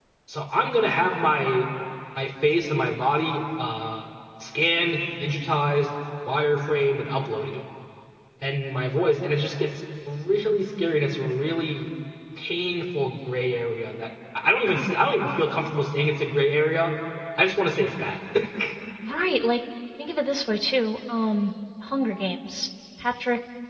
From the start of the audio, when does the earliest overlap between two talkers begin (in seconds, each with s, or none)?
none